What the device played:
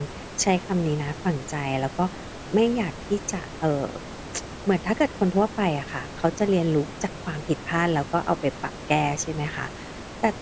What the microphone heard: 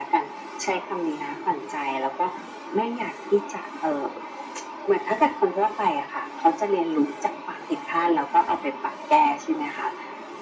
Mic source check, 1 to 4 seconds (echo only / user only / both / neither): echo only